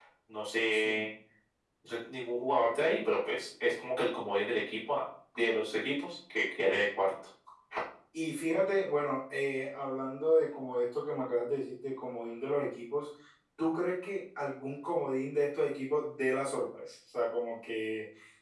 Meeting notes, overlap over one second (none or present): none